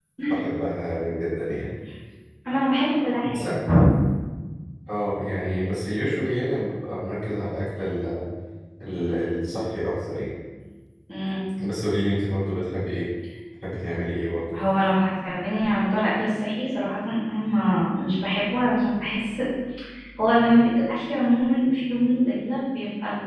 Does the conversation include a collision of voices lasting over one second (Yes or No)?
No